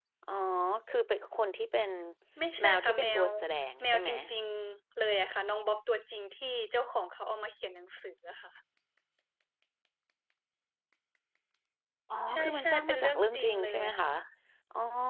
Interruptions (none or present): present